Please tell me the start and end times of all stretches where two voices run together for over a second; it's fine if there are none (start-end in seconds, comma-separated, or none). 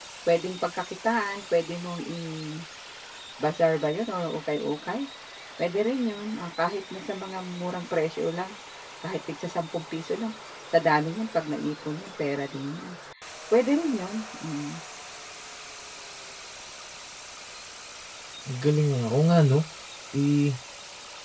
none